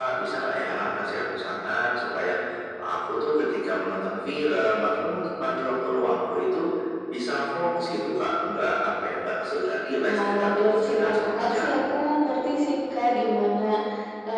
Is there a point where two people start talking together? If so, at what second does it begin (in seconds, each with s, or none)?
10.0 s